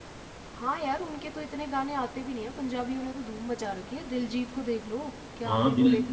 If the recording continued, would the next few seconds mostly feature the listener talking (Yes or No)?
Yes